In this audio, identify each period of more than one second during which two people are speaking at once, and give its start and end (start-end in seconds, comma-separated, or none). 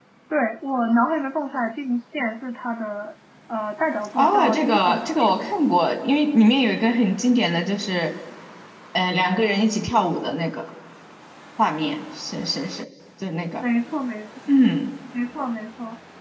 4.2-5.4